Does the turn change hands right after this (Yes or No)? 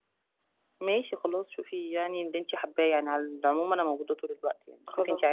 No